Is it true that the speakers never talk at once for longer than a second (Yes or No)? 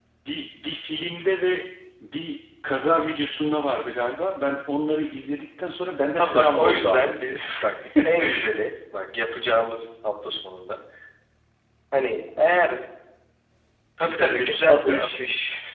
No